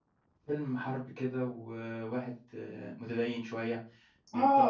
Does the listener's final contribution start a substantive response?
Yes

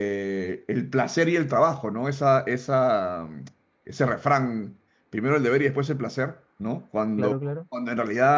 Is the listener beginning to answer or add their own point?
No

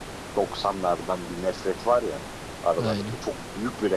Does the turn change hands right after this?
No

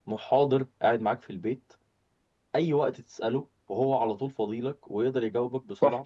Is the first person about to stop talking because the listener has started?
Yes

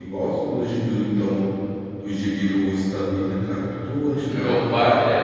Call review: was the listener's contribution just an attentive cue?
No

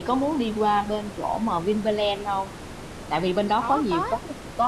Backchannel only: Yes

